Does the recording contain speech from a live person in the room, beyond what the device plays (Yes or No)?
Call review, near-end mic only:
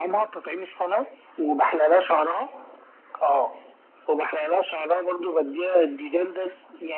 No